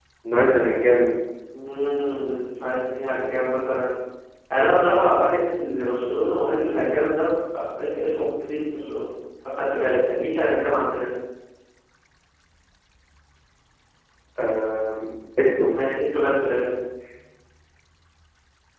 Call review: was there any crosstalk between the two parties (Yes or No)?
No